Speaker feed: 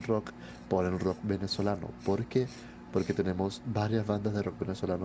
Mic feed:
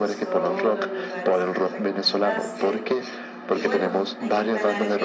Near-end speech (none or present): present